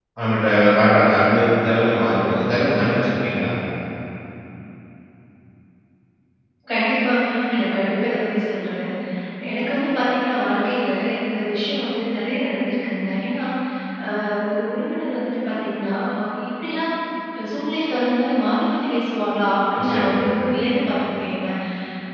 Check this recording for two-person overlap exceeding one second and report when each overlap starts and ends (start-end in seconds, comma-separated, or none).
none